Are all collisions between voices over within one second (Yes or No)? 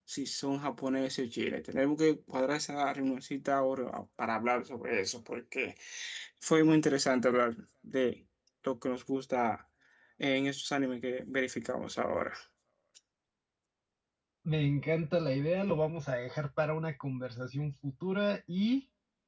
Yes